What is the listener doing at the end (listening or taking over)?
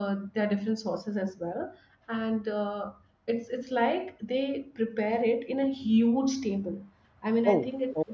listening